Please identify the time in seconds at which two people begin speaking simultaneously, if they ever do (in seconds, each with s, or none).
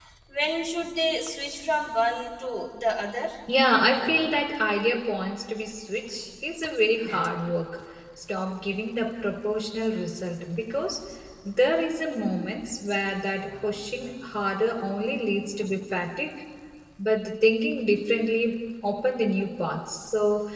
none